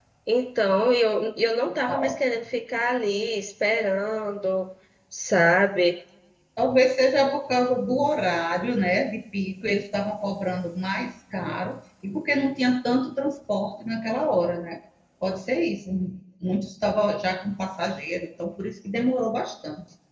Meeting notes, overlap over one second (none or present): none